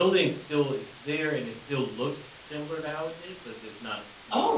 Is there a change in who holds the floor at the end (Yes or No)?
Yes